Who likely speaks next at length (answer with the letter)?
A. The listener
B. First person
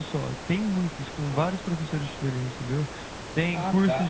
B